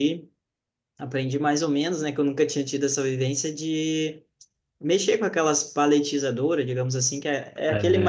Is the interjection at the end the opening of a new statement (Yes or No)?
No